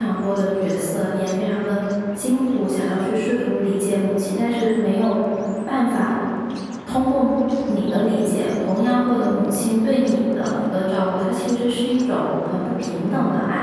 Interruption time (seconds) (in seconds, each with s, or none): none